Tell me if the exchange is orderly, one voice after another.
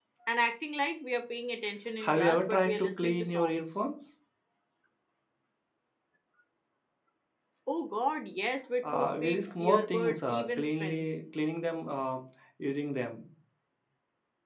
No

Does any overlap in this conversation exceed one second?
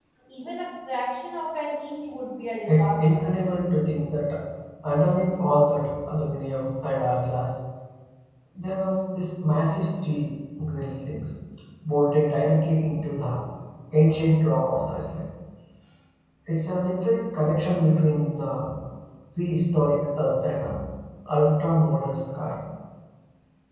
No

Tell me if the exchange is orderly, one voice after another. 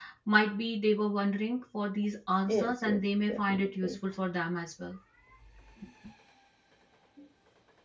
No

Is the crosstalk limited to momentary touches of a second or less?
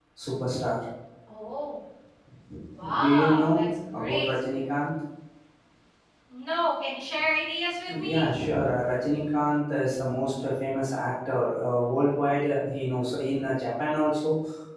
No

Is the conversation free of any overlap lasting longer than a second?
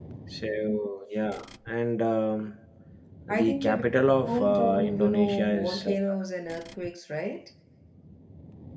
No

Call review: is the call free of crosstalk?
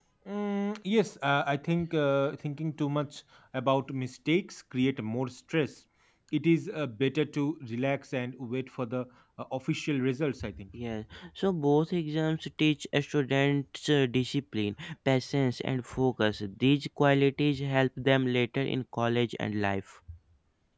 Yes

